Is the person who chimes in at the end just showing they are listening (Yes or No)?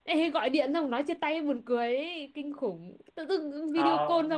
Yes